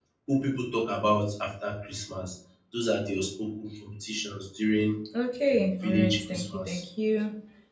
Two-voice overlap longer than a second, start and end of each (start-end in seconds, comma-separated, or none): 5.5-6.8